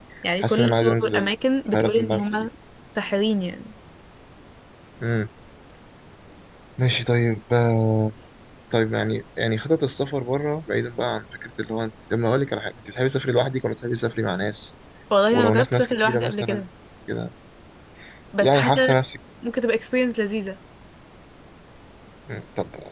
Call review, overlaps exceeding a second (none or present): present